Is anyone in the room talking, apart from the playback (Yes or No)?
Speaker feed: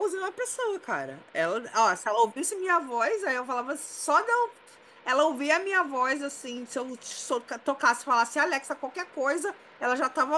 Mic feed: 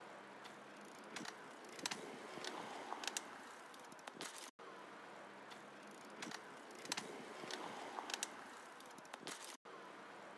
No